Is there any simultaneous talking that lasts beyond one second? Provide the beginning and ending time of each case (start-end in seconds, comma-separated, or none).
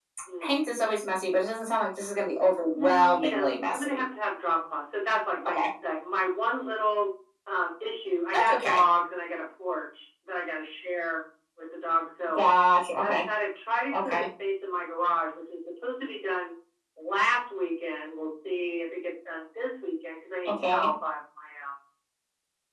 2.7-4.0